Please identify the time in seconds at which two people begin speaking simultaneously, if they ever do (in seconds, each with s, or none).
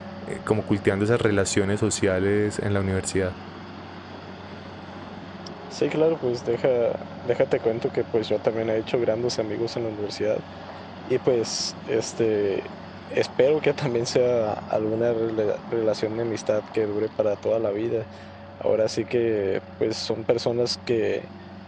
none